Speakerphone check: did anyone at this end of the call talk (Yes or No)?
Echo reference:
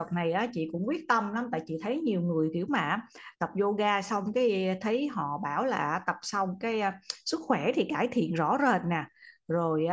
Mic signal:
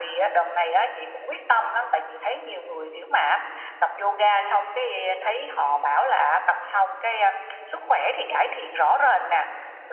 No